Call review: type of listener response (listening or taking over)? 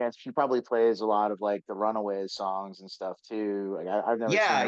taking over